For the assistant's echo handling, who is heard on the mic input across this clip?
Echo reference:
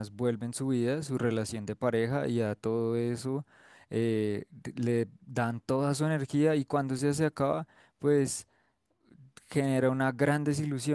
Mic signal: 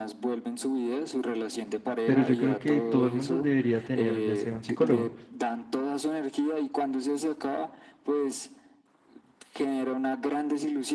both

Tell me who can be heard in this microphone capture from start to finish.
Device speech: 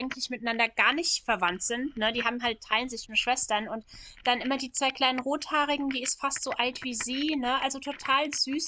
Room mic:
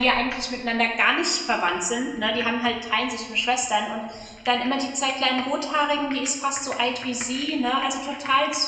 echo only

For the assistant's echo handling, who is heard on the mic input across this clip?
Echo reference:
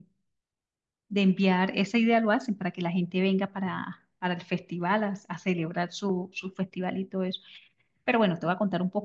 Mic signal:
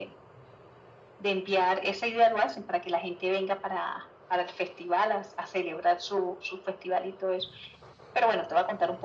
echo only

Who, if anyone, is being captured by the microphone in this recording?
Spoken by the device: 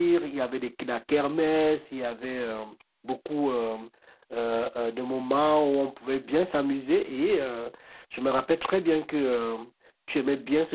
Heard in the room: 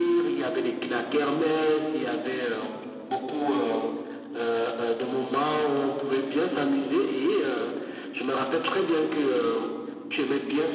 echo only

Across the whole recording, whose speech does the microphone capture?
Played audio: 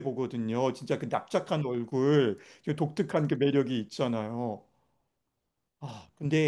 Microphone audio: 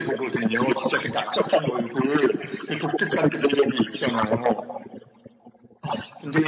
echo only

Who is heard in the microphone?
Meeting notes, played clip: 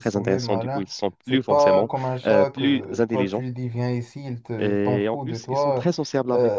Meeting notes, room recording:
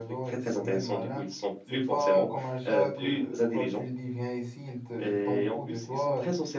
echo only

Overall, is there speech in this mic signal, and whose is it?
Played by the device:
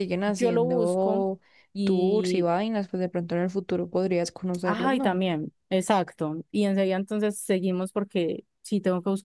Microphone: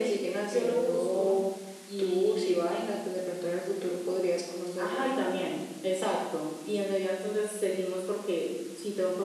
echo only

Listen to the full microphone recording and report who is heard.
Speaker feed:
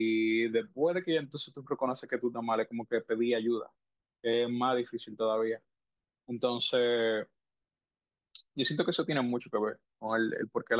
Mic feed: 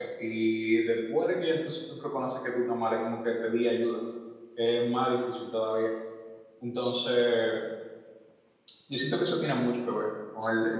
echo only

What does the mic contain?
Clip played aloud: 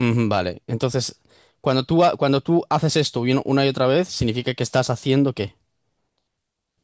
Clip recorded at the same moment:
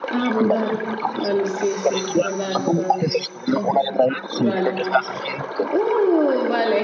both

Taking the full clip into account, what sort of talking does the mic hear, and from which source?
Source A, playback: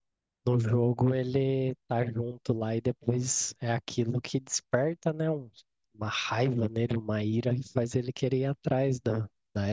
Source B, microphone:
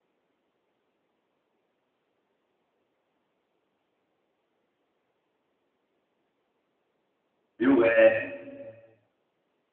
user only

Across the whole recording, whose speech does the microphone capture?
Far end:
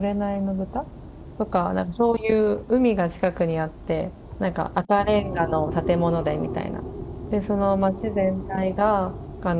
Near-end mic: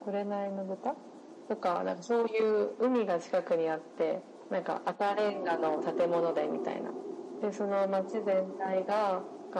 echo only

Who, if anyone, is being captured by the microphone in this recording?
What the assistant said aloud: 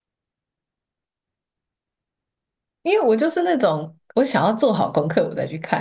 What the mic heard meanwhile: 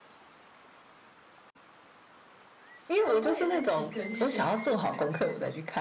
both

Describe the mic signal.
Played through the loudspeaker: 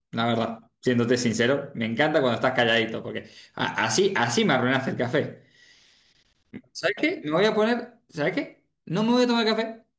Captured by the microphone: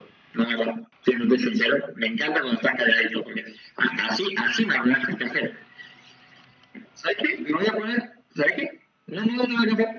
echo only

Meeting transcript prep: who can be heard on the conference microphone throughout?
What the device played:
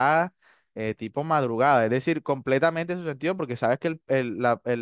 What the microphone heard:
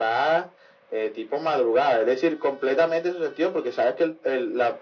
echo only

